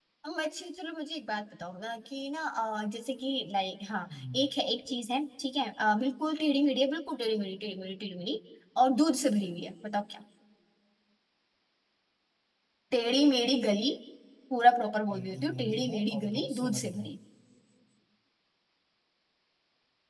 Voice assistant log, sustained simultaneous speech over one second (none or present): present